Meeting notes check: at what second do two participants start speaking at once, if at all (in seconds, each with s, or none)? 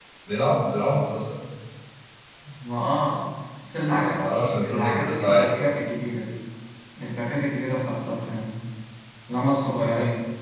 3.9 s